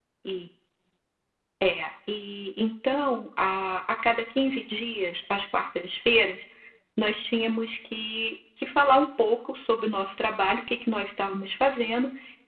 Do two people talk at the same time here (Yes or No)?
No